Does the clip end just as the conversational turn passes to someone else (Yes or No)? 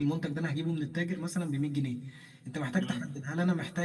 No